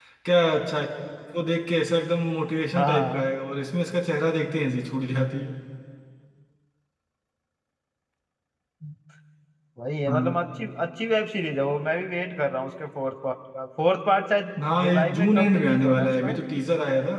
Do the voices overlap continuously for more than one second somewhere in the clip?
Yes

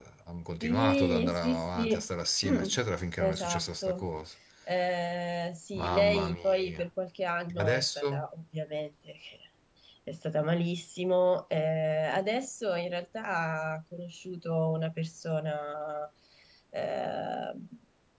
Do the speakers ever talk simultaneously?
Yes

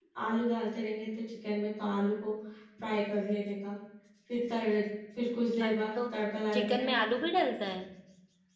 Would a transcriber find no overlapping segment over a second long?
Yes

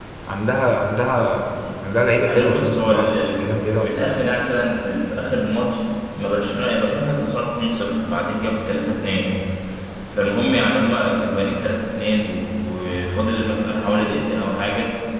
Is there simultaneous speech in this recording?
Yes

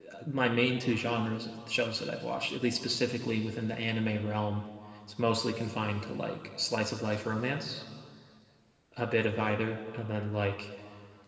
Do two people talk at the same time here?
No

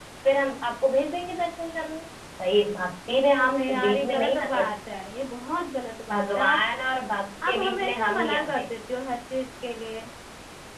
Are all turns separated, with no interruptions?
No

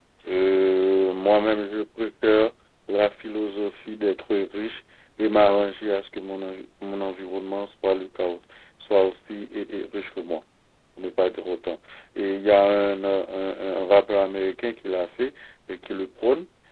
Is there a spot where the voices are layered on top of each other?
No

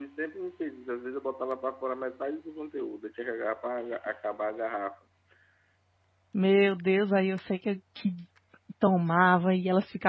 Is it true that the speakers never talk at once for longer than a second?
Yes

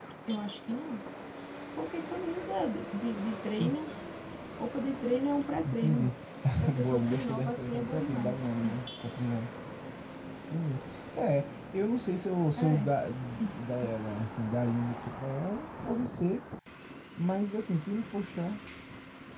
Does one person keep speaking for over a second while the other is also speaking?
Yes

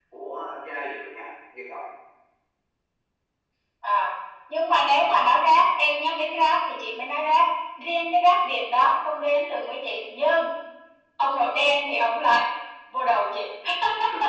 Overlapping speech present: No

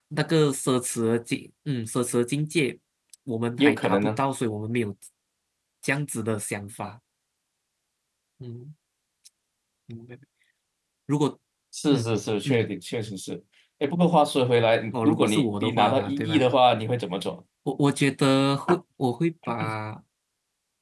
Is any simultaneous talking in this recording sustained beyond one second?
Yes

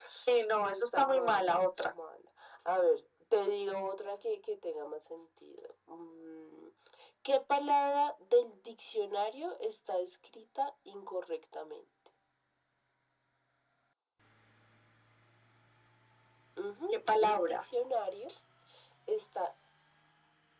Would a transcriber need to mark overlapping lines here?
Yes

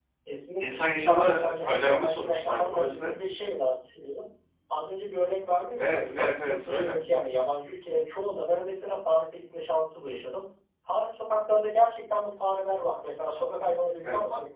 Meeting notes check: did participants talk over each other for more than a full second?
Yes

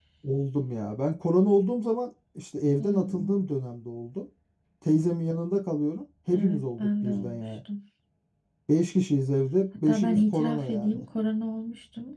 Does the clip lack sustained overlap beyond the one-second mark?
No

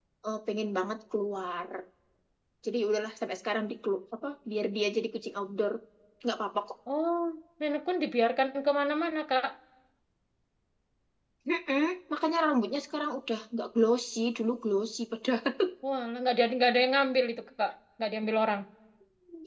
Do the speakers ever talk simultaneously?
No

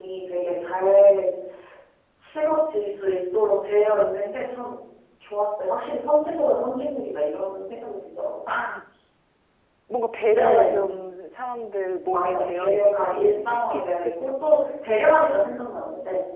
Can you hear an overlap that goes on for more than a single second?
Yes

